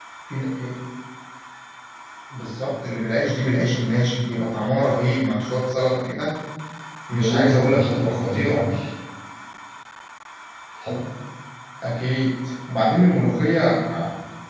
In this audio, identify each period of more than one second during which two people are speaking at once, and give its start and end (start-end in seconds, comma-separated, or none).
7.1-8.6